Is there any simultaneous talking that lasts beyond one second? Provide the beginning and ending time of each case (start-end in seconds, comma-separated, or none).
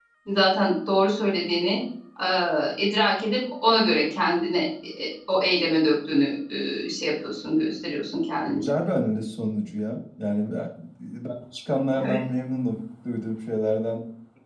none